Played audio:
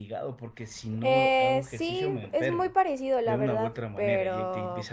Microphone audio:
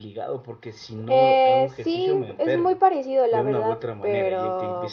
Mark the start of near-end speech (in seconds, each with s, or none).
none